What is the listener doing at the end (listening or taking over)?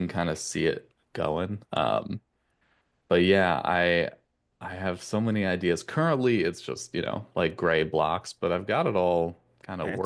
taking over